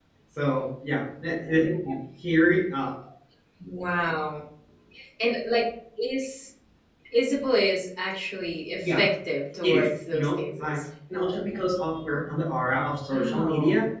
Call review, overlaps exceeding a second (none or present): present